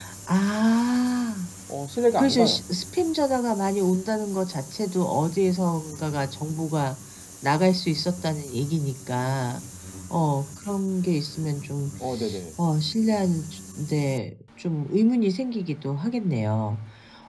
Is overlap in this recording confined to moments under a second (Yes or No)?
Yes